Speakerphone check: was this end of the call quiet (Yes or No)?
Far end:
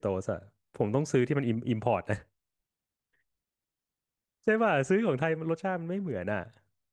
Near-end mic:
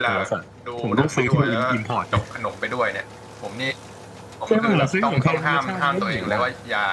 No